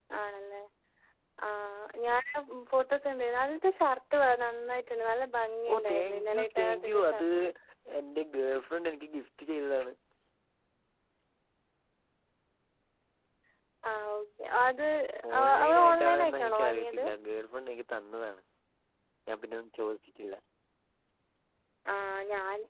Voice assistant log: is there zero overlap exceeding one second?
No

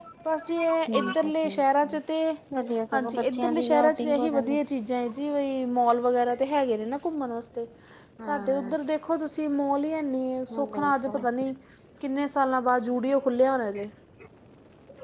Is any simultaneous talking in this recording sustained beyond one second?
Yes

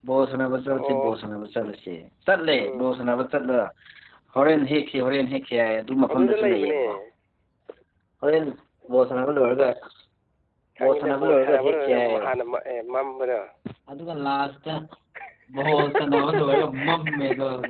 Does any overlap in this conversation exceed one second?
Yes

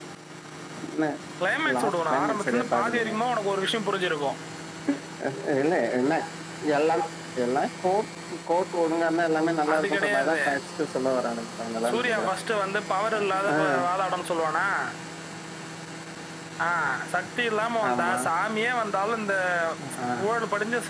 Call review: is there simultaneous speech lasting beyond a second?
Yes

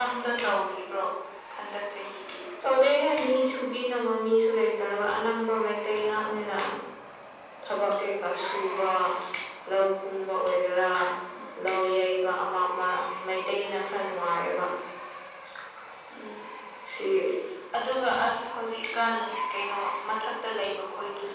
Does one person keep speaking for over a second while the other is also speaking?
No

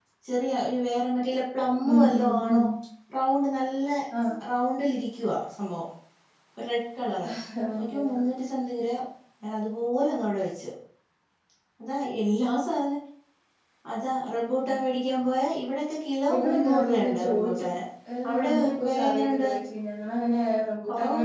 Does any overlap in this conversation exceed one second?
Yes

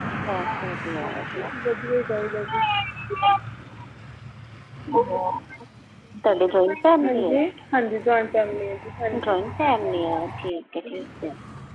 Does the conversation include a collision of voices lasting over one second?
No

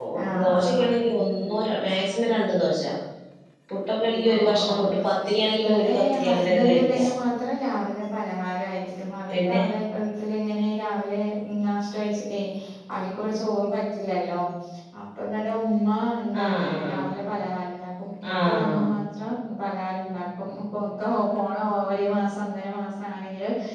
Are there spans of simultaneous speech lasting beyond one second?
Yes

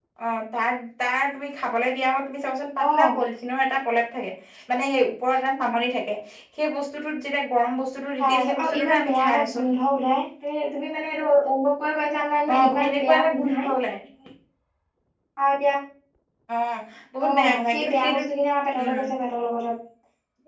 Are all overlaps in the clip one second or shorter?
No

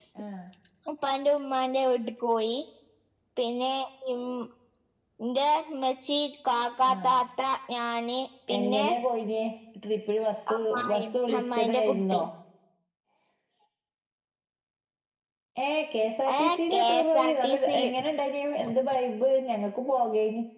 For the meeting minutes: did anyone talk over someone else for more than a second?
Yes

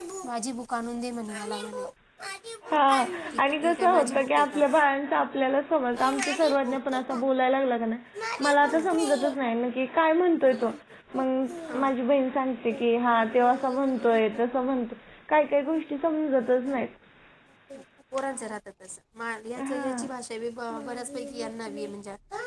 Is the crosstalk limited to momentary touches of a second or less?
No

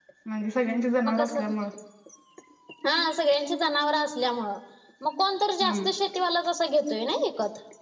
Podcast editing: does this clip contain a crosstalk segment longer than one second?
No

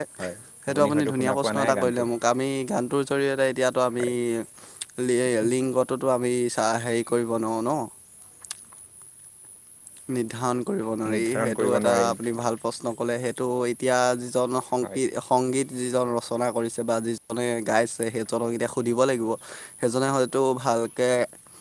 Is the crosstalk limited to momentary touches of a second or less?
No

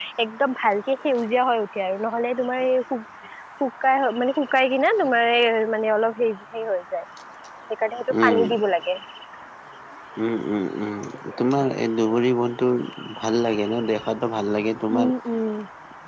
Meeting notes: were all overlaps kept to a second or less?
Yes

